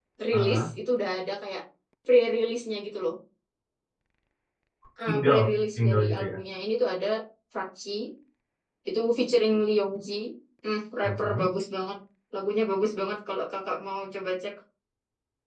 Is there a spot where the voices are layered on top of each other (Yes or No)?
Yes